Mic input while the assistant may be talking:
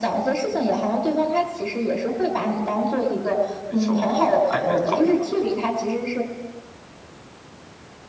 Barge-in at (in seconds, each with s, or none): 3.7 s